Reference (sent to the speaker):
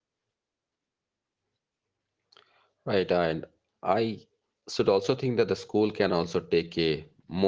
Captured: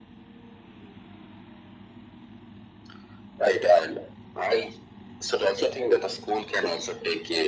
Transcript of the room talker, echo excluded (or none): none